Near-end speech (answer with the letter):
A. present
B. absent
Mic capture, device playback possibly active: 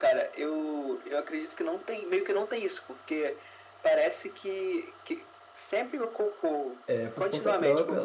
A